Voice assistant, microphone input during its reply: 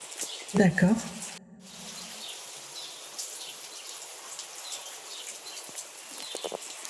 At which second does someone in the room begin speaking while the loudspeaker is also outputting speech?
1 s

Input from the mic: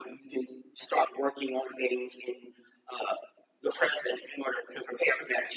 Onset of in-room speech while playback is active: none

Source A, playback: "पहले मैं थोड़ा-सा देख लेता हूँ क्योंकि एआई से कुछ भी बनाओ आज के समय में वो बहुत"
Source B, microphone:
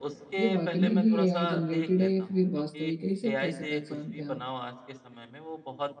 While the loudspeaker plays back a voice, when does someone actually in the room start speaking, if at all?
0 s

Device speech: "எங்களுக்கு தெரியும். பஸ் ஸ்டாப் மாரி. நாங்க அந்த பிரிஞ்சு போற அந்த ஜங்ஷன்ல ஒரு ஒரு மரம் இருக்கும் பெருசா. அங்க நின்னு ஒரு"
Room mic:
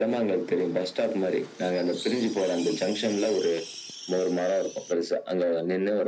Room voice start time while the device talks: none

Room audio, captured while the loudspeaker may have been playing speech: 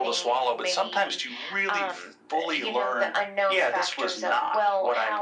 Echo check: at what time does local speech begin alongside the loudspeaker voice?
none

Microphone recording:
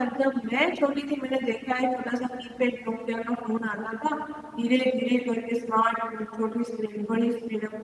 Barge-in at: none

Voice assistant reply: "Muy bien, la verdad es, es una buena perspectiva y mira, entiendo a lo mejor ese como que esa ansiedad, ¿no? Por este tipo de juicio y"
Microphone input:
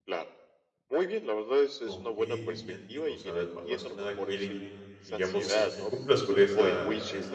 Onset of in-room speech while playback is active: 2 s

